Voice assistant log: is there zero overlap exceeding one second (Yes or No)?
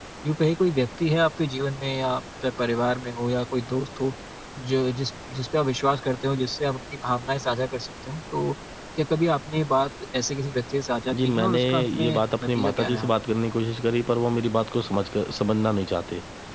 No